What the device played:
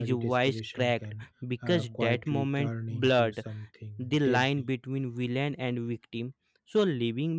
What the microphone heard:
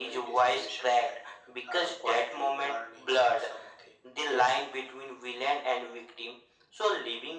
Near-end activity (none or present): none